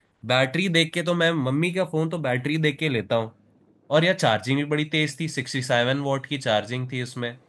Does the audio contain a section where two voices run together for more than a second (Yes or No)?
No